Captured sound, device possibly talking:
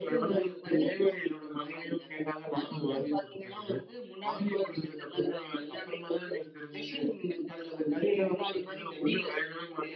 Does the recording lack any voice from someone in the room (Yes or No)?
Yes